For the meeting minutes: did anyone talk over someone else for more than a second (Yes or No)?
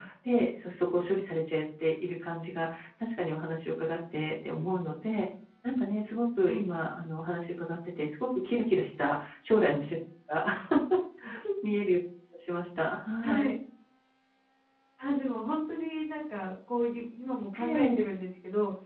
No